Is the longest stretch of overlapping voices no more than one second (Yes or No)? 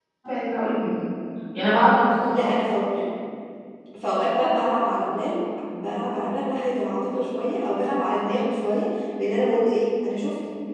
Yes